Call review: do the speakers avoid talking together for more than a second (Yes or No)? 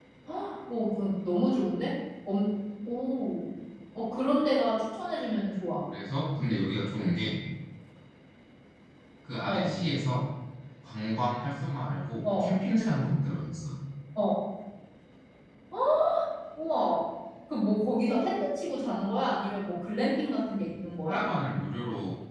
Yes